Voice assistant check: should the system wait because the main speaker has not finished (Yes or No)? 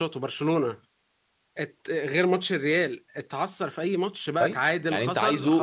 No